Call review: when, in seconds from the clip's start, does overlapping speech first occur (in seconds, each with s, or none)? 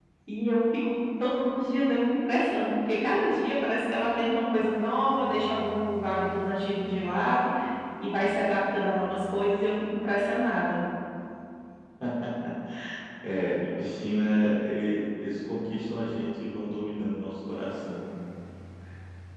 none